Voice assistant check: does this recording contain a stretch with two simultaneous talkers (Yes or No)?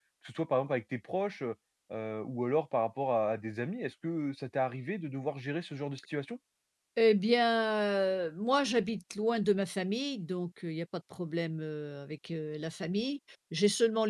No